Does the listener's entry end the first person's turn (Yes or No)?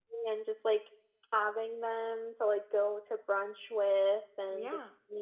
No